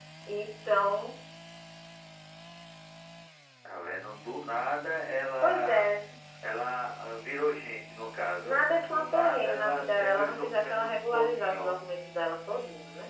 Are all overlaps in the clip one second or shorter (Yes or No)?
No